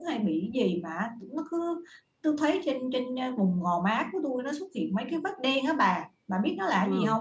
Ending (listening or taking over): taking over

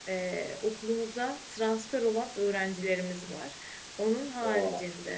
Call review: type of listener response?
listening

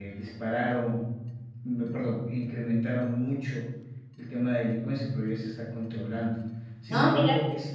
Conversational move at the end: listening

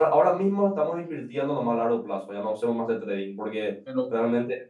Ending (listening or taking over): listening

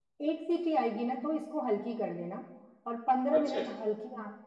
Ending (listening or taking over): listening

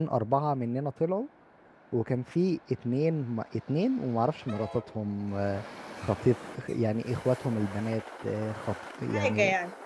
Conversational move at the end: listening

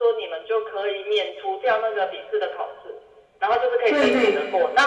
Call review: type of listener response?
listening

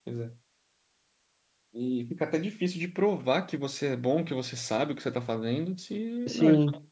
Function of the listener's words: listening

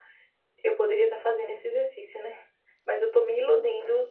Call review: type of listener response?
listening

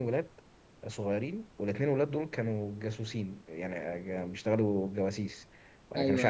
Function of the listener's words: listening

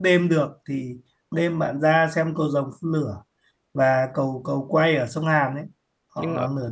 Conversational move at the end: listening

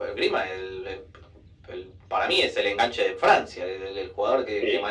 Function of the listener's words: listening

